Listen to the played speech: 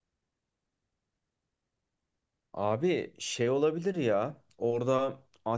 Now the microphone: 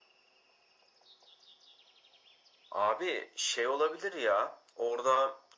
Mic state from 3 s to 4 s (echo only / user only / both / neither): echo only